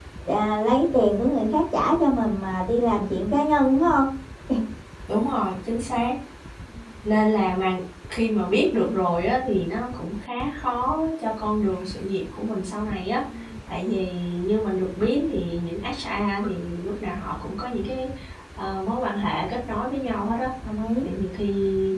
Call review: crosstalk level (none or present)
none